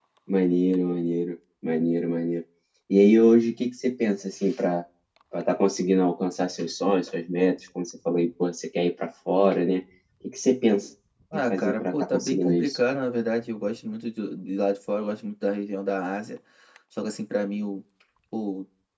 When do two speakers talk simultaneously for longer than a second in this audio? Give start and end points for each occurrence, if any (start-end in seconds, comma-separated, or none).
11.3-12.8